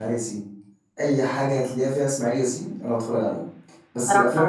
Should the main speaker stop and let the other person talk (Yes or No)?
No